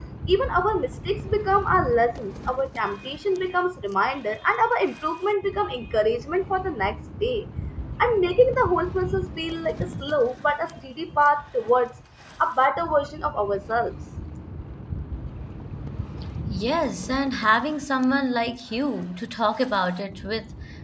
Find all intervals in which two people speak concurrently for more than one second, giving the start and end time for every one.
none

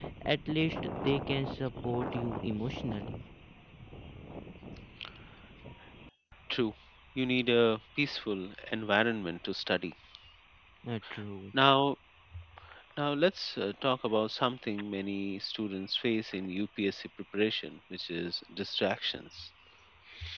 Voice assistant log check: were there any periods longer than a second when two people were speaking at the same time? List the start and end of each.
none

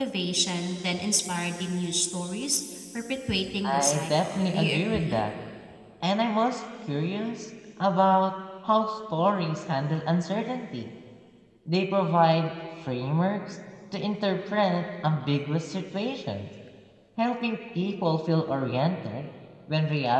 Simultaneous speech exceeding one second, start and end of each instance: 3.7-5.2

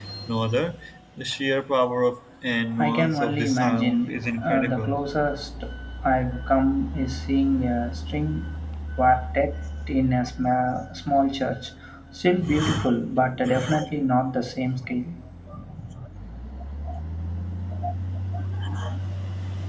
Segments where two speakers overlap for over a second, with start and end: 2.8-5.0

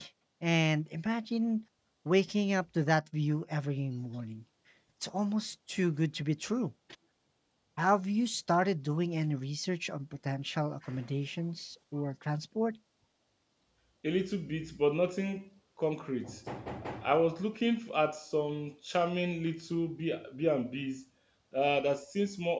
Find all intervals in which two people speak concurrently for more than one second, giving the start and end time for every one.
none

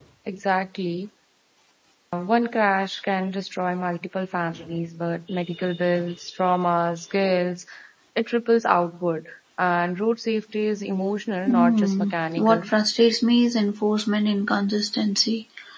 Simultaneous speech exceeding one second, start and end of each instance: 11.5-12.7

